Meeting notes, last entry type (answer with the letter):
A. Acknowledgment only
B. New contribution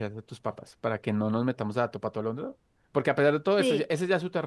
A